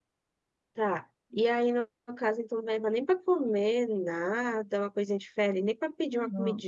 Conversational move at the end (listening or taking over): taking over